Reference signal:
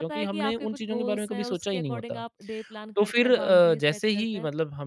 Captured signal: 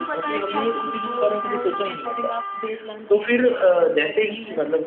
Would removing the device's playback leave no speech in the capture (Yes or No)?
Yes